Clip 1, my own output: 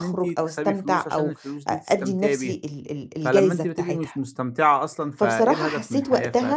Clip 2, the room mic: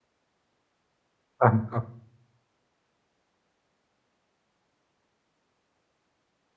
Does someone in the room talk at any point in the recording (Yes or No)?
Yes